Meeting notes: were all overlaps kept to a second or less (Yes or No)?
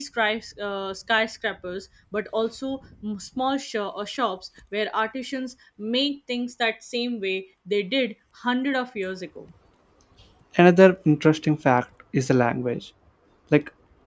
Yes